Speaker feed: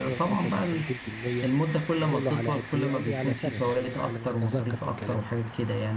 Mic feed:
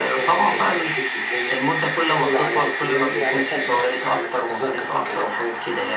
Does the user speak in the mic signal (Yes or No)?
No